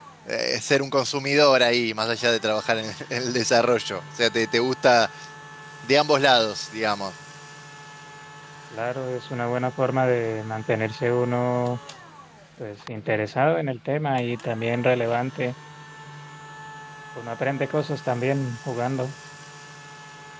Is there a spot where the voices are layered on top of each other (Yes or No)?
No